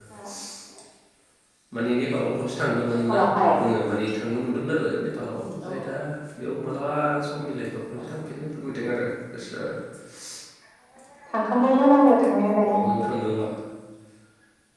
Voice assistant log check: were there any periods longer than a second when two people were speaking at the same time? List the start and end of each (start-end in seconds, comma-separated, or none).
none